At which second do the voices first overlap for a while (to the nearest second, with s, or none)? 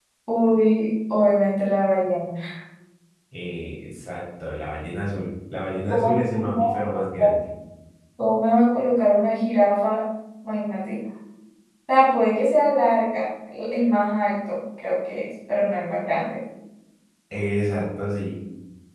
6 s